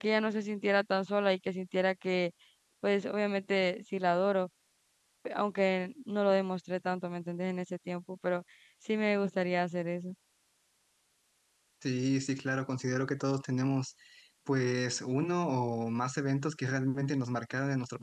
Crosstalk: none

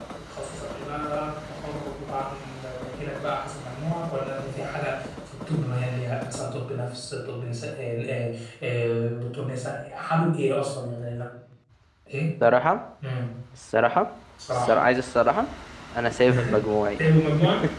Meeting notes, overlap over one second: none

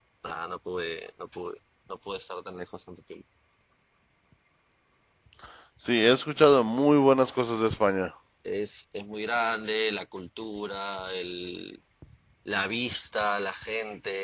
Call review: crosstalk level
none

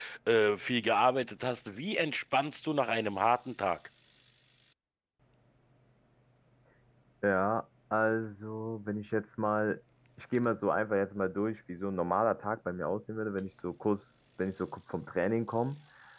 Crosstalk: none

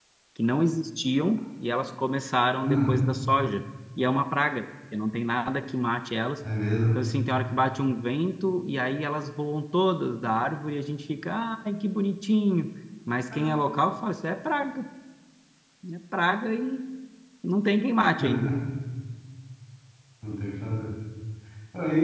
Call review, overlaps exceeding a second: none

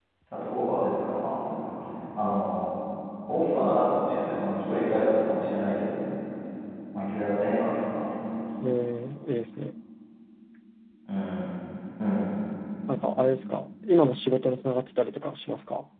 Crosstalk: none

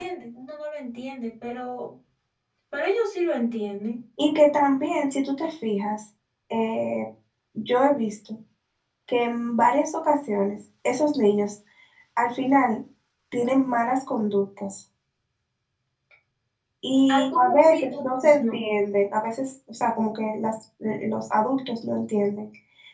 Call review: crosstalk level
present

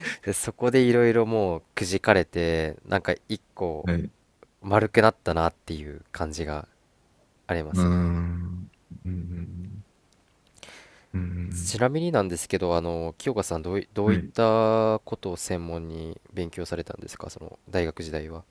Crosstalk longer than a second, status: none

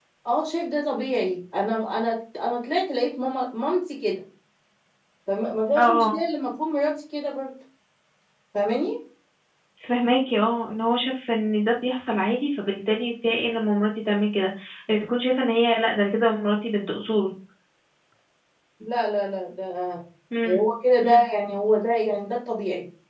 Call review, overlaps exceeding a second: none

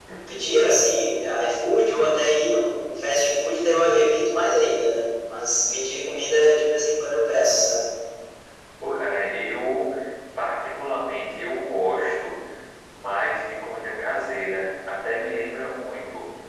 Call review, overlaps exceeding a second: none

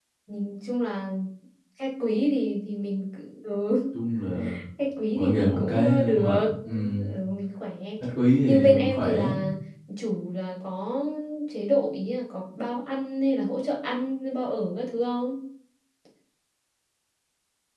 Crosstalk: present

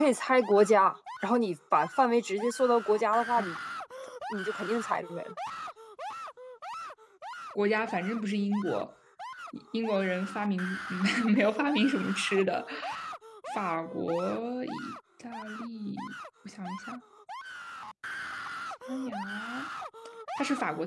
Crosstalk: none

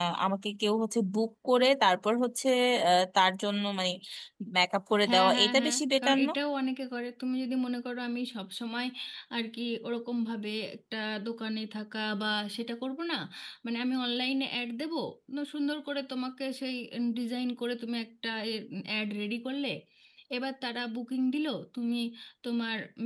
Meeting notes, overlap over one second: present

